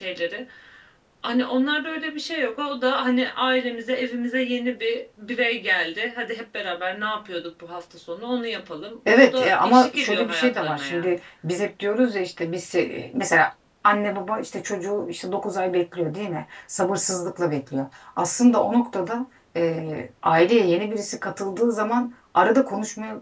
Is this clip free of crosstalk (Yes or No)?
No